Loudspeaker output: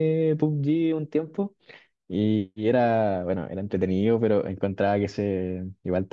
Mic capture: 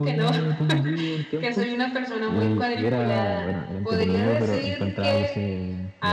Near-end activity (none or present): present